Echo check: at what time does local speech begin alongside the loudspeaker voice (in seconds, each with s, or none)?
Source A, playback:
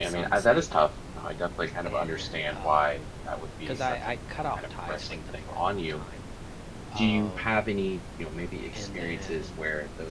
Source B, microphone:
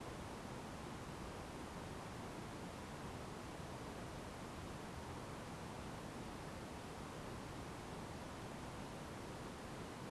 none